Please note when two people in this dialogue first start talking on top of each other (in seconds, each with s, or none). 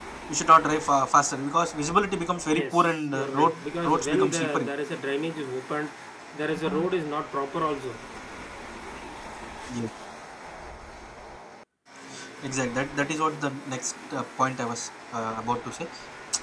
2.5 s